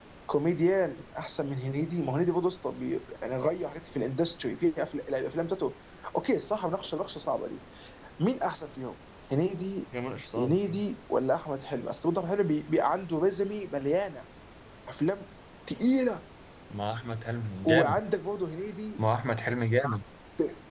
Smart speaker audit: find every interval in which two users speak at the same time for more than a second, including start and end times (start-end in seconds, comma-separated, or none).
none